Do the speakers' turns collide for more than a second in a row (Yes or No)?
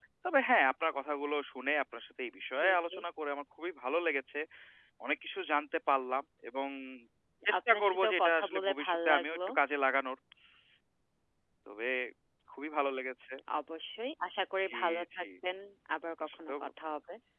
Yes